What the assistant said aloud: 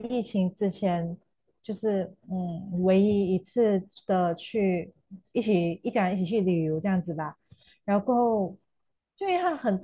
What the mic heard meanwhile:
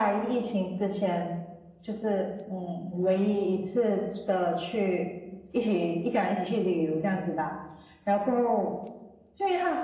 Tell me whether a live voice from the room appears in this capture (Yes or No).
No